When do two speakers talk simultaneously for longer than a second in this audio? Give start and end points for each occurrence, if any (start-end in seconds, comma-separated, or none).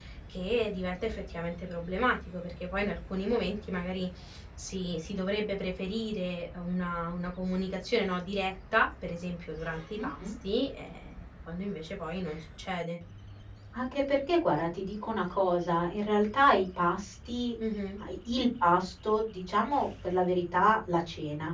none